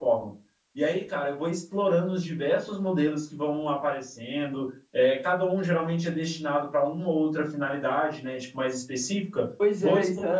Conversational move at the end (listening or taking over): taking over